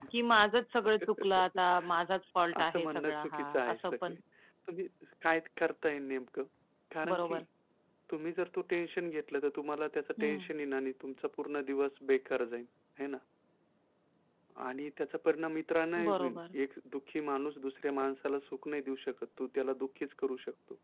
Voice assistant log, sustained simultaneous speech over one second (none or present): present